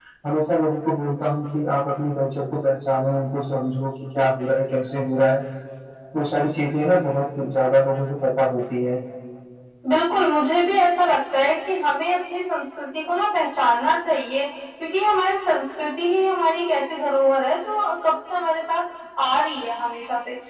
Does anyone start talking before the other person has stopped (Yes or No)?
No